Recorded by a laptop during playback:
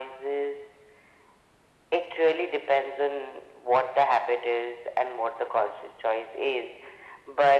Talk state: echo only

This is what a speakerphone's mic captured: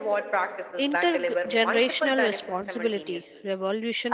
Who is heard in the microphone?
both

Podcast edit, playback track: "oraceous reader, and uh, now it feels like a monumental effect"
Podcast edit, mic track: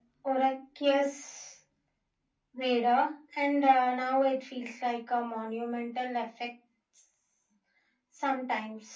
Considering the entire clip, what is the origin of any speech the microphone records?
echo only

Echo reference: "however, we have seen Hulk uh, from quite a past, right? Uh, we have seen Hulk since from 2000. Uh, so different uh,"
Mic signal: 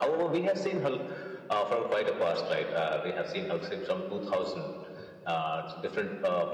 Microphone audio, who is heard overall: echo only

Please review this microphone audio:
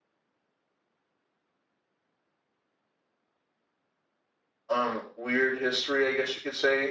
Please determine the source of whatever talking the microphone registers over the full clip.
user only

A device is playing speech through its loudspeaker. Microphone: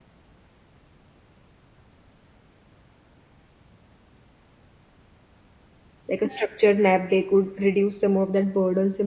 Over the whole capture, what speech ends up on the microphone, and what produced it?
user only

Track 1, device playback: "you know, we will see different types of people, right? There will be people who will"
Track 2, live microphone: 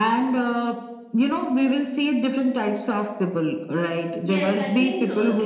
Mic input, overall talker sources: both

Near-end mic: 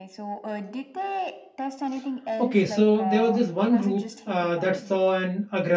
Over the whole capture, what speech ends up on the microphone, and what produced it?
both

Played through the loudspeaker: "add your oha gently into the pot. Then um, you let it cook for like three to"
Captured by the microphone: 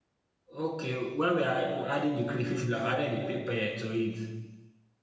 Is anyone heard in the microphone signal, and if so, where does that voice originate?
user only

